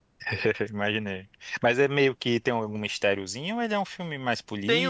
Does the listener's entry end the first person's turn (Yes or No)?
Yes